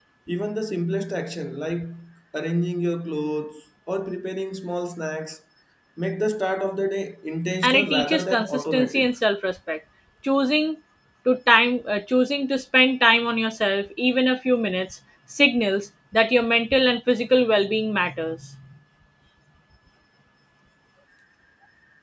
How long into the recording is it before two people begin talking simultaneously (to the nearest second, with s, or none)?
8 s